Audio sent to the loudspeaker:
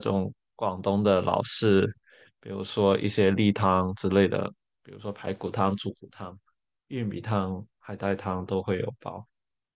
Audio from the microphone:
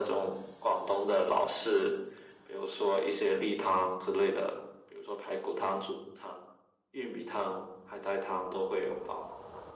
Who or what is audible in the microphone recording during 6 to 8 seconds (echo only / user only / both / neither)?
echo only